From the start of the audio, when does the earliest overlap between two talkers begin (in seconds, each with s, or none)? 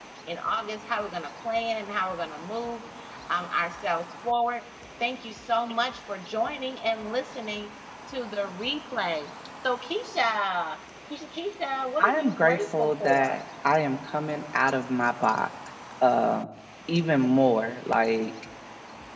12.0 s